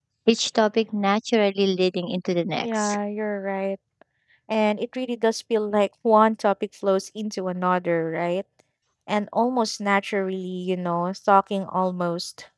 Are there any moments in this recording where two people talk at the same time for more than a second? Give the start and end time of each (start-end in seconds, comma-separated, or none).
none